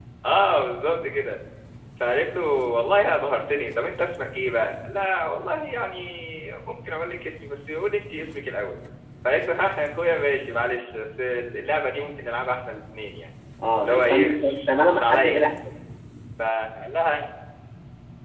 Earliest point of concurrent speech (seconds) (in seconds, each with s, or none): 13.8 s